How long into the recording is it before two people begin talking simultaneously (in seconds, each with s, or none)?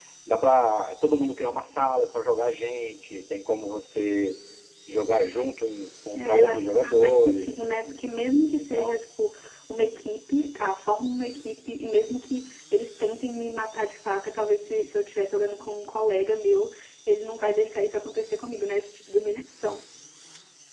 6.2 s